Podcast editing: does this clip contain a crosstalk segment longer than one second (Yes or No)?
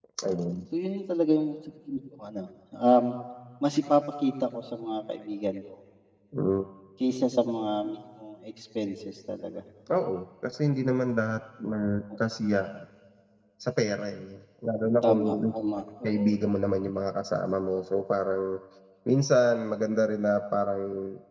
No